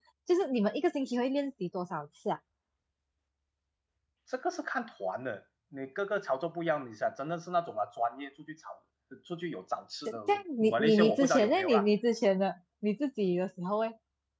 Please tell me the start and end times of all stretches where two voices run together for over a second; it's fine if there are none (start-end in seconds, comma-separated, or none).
10.1-11.9